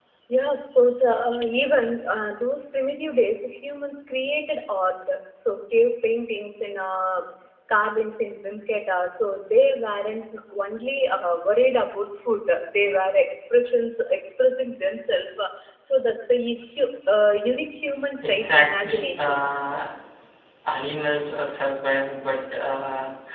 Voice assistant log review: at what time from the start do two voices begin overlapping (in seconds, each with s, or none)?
18.2 s